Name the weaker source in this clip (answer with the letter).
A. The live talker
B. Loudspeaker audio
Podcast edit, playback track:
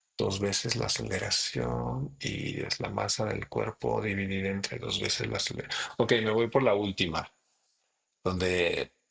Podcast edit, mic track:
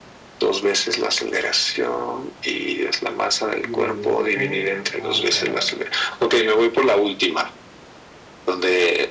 A